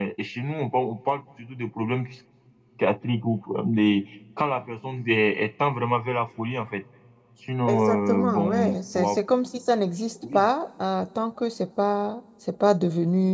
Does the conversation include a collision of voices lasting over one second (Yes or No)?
Yes